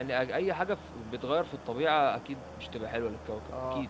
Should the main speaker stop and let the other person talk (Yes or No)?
Yes